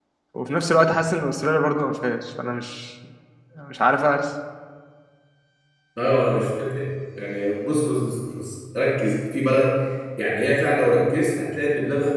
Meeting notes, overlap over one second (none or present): none